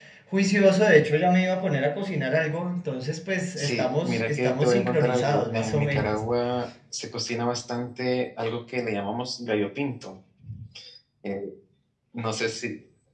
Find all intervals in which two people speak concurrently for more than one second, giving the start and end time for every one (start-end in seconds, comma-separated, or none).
3.6-6.2